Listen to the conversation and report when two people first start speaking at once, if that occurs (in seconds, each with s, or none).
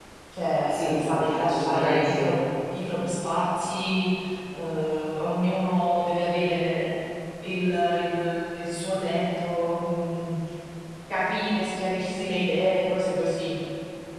0.7 s